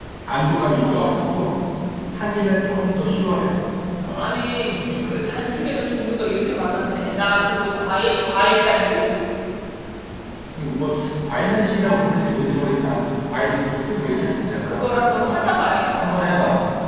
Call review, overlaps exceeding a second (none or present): present